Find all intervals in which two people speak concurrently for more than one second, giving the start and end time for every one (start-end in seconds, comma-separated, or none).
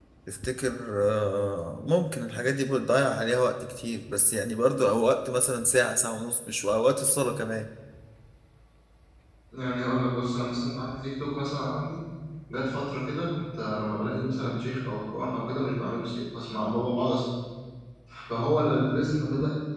none